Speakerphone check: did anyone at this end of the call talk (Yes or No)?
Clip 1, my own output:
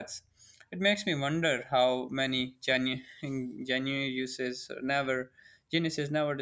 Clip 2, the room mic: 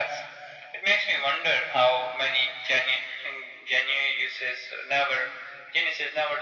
No